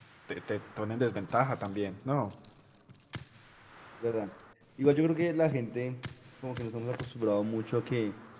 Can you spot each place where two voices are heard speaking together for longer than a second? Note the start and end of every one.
none

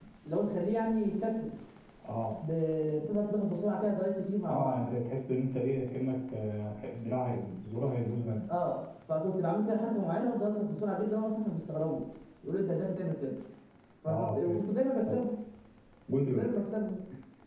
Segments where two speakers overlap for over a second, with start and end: none

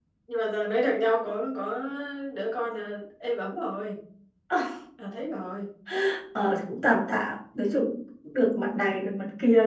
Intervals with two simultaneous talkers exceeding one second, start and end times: none

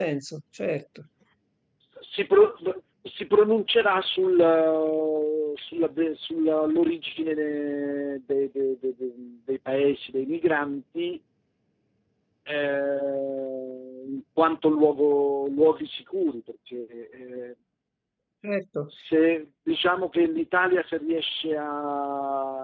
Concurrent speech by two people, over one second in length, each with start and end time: none

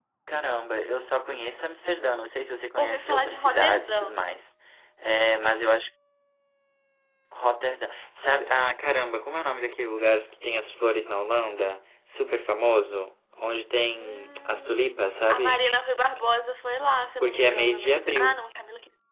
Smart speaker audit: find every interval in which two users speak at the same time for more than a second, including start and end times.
2.8-4.0, 13.9-15.6, 17.2-18.4

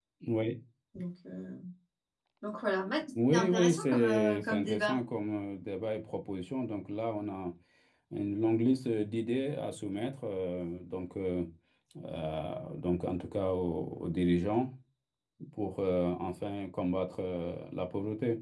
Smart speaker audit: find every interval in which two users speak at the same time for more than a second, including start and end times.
3.3-5.0

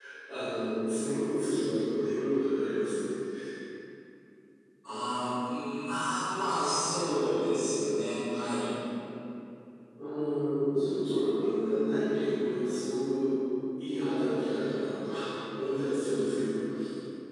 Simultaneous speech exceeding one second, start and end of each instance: none

